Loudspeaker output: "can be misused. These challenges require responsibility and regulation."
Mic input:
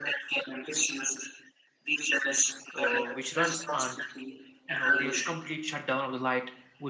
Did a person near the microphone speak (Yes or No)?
Yes